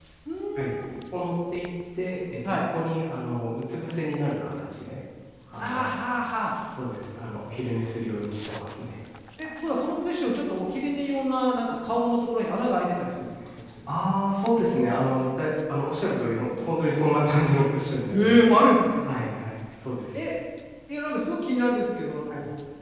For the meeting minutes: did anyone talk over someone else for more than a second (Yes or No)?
No